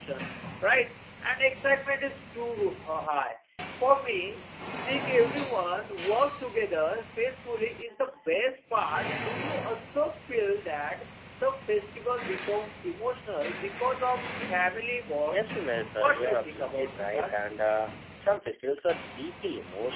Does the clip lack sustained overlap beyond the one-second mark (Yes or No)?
No